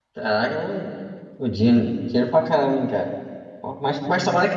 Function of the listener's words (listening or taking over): listening